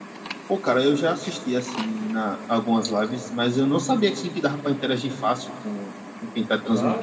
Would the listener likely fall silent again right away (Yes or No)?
No